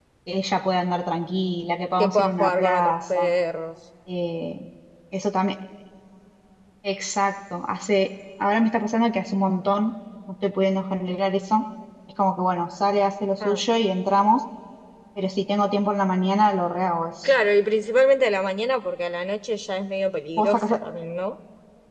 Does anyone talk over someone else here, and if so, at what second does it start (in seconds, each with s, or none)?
2.0 s